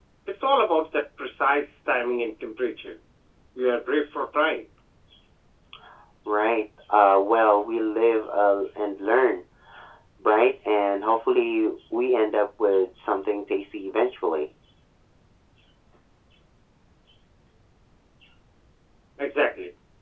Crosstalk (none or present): none